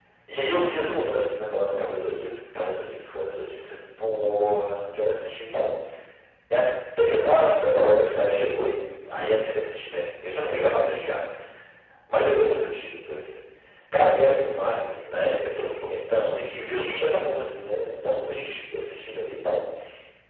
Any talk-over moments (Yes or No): No